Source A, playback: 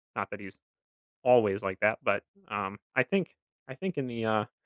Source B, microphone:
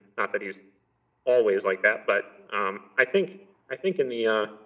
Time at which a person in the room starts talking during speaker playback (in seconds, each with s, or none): none